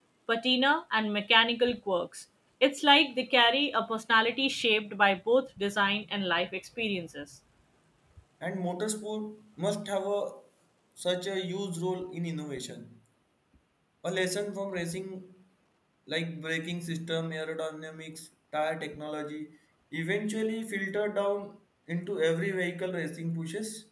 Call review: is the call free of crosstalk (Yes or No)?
Yes